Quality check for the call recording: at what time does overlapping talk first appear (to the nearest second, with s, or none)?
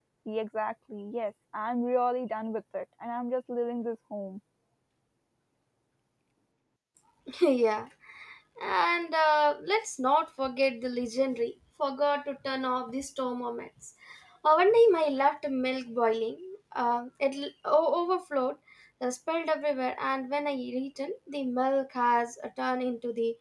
none